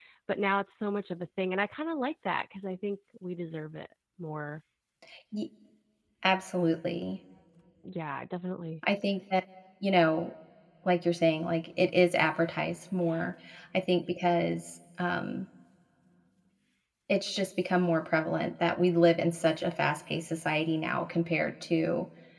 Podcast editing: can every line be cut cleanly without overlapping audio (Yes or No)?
Yes